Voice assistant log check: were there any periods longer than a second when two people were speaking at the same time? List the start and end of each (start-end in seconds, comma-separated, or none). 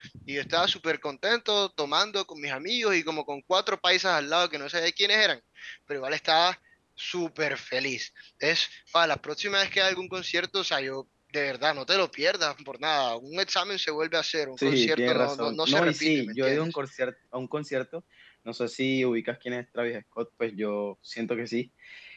14.6-16.8